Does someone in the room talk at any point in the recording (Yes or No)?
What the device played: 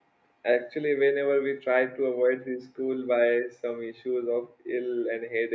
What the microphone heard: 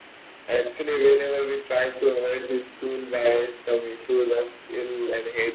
No